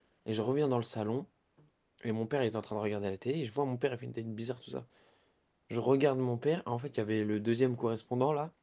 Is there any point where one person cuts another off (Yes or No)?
No